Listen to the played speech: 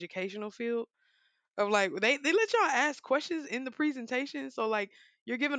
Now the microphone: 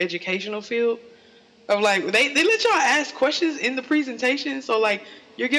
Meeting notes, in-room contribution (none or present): none